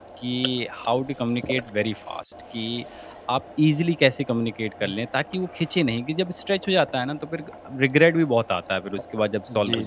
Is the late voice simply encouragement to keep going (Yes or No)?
No